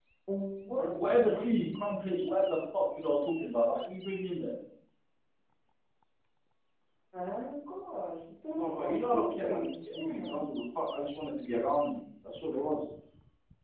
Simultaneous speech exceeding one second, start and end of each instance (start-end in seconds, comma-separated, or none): 0.8-2.6, 8.5-10.5